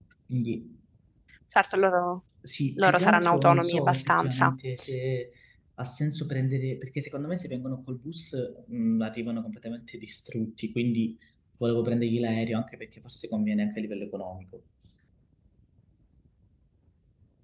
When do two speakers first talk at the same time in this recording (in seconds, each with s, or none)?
2.8 s